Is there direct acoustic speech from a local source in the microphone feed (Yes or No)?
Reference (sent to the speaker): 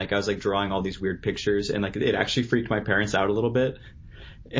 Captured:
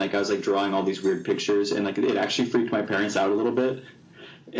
No